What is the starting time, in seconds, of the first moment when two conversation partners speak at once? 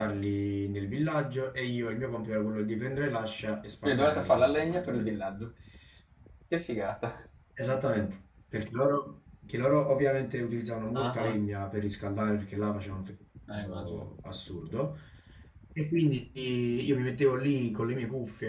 4 s

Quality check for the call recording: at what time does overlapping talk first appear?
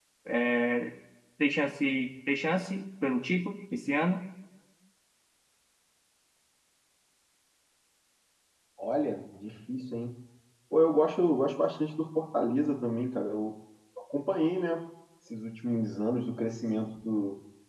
none

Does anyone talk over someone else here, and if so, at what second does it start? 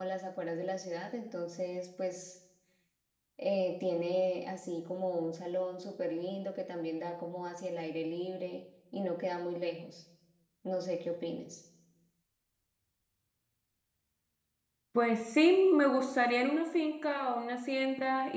none

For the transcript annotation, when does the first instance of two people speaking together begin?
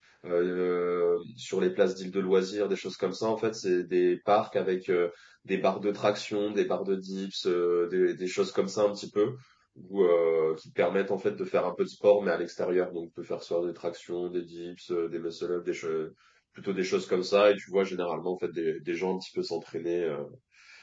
none

